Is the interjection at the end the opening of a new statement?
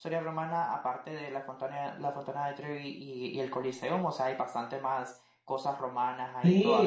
Yes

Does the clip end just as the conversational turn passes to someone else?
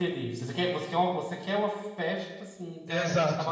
Yes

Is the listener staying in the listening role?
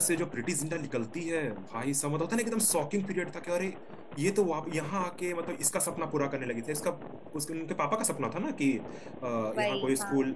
Yes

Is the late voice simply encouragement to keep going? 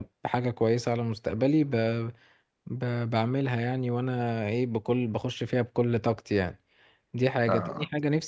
Yes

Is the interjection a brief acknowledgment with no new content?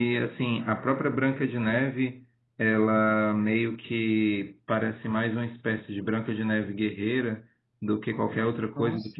Yes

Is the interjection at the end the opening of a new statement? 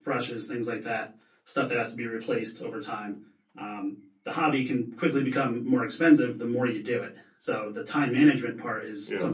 No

